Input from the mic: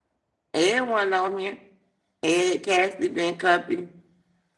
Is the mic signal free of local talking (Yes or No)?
No